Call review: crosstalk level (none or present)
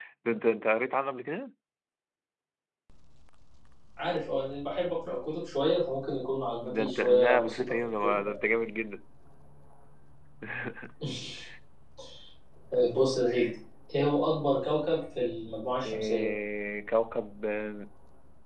present